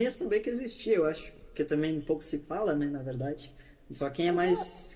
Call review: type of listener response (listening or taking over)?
listening